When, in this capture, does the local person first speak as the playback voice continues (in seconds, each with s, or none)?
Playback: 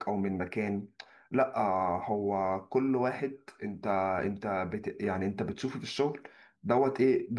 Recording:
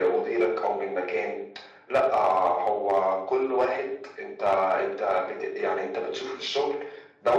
none